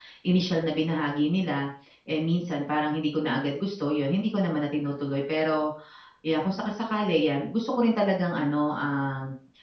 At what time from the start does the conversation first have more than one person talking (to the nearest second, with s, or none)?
none